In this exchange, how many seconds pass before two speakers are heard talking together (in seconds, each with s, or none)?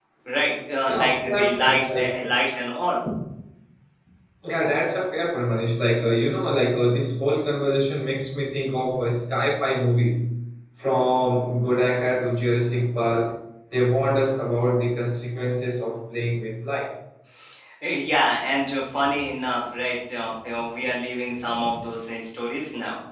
0.8 s